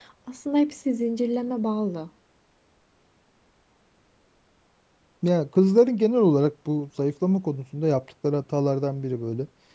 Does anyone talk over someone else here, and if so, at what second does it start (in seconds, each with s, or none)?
none